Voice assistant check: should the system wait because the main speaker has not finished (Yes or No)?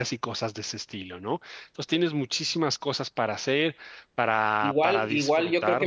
No